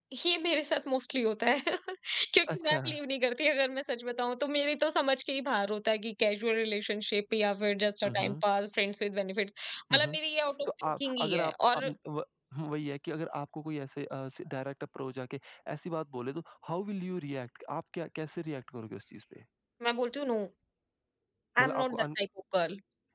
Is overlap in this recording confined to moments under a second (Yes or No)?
No